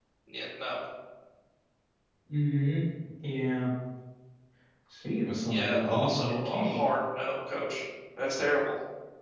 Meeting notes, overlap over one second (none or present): present